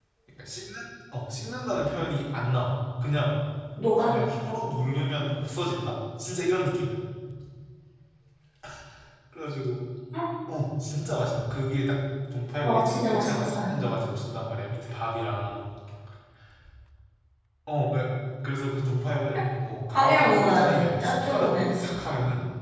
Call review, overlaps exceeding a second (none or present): present